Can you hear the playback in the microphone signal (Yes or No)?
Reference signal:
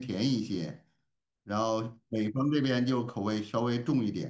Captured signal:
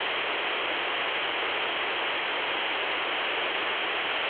No